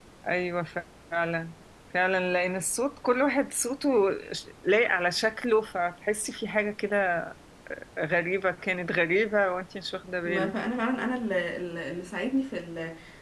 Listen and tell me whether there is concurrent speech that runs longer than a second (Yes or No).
No